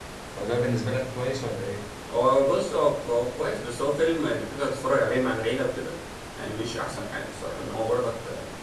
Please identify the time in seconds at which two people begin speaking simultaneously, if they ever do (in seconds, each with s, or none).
none